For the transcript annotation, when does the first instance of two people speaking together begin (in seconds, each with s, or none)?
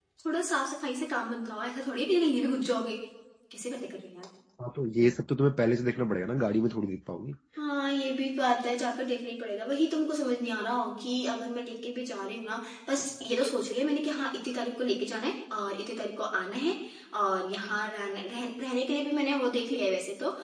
none